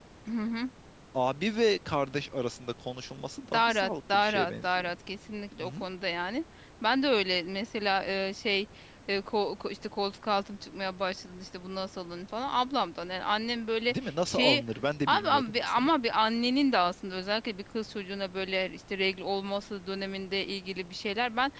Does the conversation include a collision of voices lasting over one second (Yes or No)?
Yes